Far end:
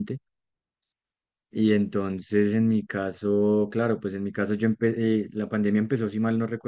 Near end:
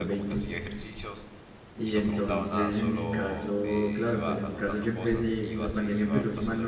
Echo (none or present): present